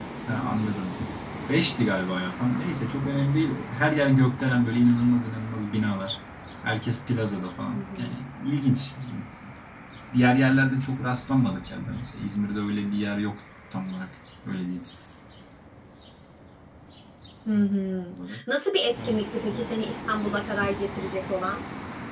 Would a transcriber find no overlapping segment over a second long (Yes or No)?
Yes